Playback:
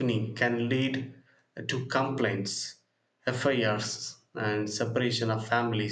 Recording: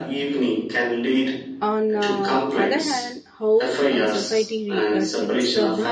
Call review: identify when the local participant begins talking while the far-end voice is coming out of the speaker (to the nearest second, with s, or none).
2 s